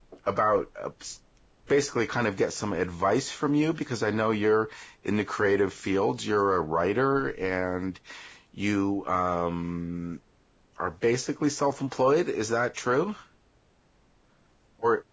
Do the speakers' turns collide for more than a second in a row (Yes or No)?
No